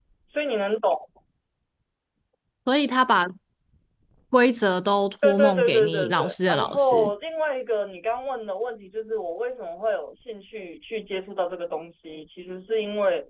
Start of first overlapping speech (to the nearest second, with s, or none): 5 s